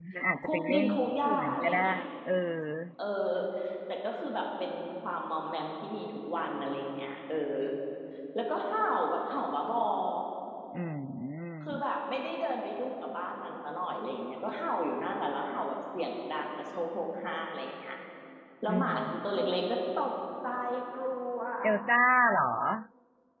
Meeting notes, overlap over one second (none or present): present